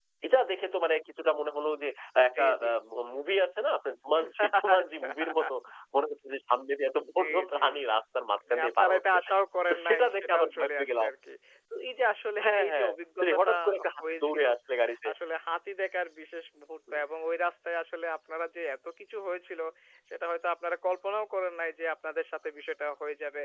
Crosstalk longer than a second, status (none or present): present